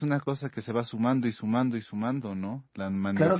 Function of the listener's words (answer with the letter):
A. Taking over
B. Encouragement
A